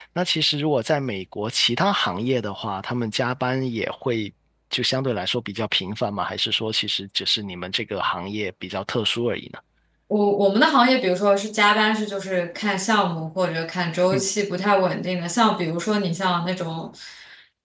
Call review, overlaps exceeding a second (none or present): none